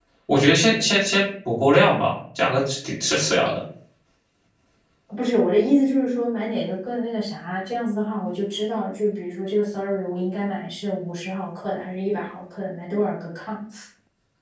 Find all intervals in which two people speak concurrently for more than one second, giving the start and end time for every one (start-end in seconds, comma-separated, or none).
none